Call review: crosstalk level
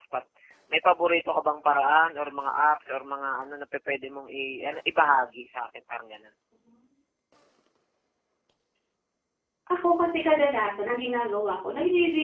none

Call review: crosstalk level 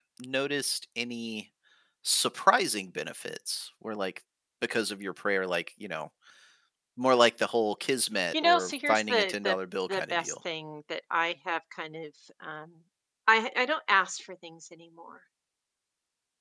present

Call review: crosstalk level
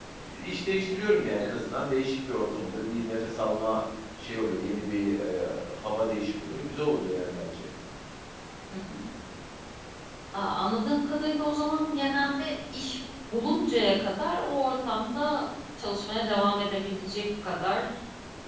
none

